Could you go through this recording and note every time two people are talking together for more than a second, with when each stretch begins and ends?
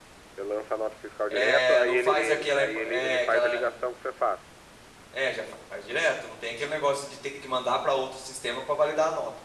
1.3-3.7

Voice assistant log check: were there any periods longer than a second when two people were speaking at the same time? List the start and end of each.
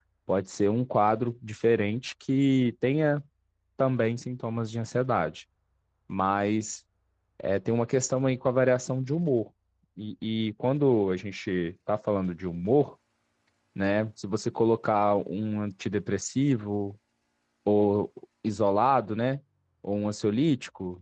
none

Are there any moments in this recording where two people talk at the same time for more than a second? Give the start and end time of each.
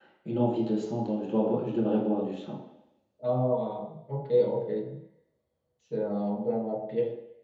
none

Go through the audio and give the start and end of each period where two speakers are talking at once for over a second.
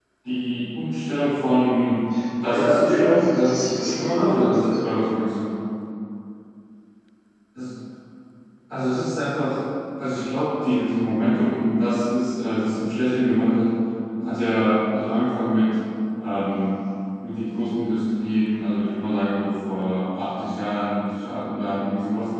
2.4-4.8

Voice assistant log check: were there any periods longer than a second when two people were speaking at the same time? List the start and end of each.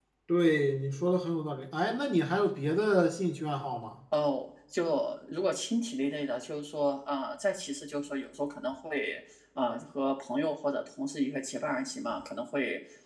none

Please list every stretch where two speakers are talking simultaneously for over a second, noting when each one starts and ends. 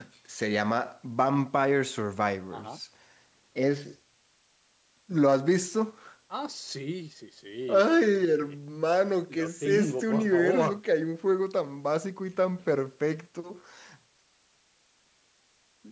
9.3-10.8

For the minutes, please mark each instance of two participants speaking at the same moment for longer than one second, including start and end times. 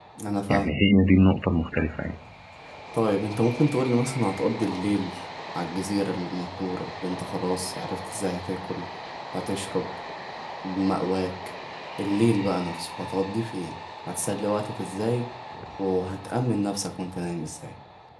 none

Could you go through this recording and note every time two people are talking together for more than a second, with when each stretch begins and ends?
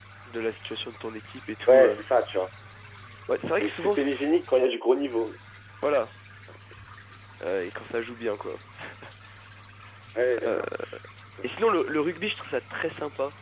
none

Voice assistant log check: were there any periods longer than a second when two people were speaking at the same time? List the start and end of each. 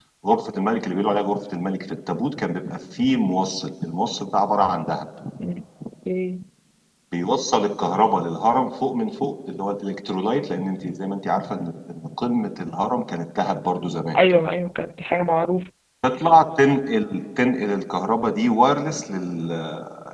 none

